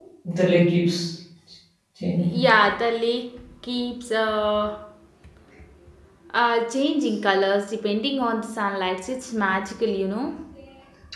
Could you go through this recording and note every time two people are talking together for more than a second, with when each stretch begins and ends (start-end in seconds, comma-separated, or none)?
none